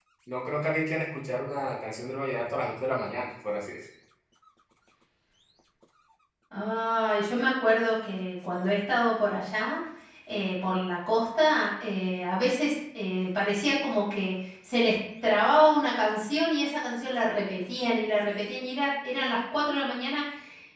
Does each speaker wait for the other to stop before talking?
Yes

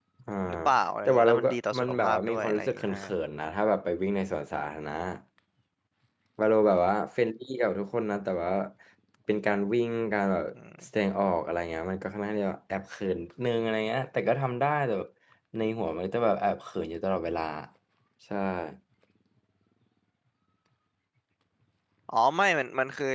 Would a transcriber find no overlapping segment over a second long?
No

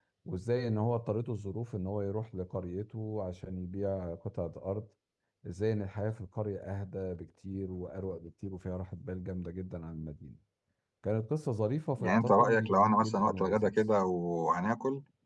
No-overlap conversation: No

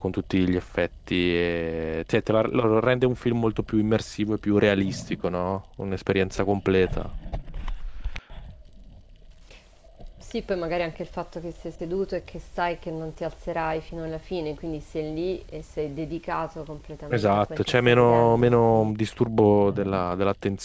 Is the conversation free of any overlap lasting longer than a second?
No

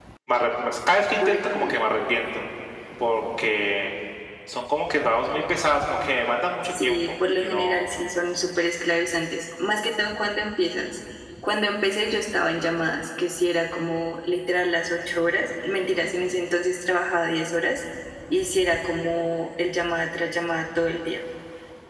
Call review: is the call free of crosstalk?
No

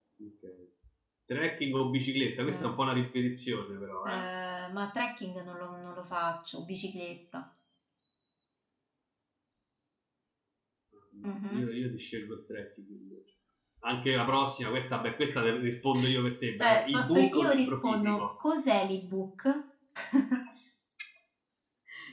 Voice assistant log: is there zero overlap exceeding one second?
No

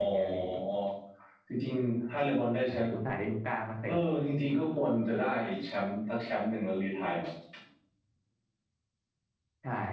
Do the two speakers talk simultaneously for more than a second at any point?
No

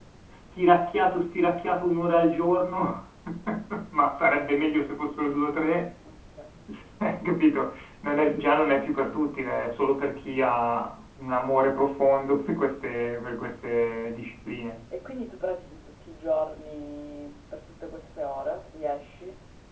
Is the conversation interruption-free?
Yes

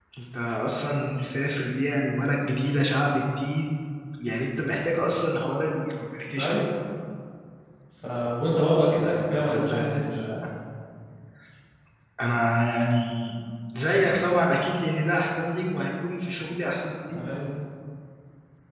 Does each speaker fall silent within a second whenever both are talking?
No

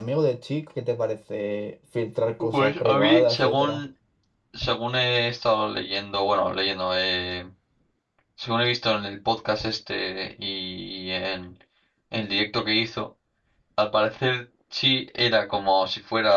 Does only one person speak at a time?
No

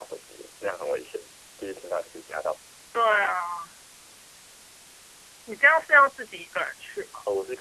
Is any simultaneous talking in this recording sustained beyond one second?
No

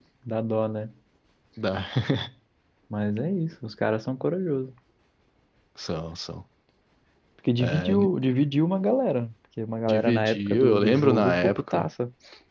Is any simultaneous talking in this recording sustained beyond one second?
Yes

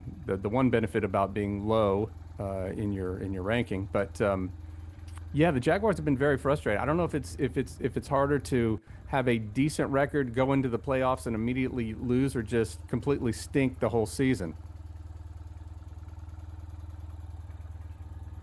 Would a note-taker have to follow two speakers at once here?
No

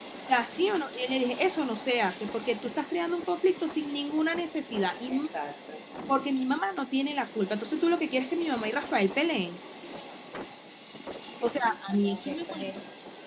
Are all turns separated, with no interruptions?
No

